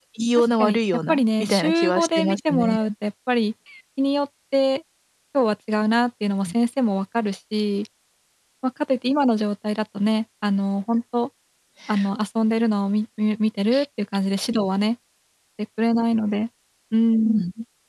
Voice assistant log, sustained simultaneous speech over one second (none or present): present